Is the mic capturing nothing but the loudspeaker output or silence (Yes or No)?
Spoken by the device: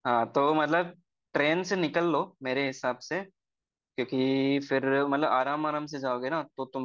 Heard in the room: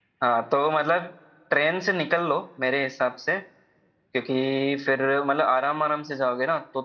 Yes